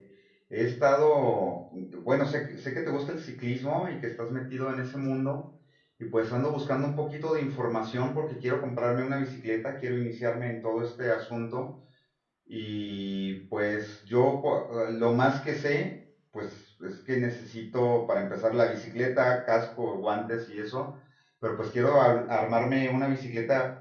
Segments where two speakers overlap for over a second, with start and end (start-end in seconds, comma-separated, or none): none